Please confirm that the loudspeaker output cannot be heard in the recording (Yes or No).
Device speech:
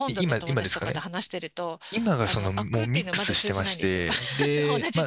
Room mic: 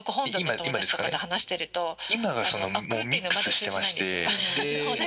No